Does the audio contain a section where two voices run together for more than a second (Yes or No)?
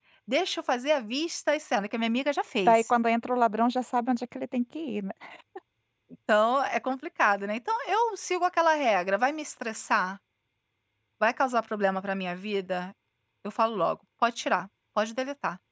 No